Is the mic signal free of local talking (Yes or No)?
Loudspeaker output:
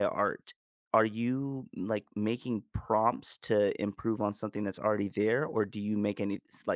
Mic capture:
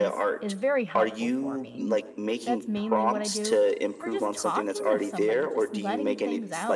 No